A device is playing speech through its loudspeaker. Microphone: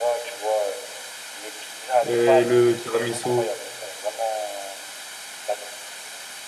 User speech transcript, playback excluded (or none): Et le tiramisu,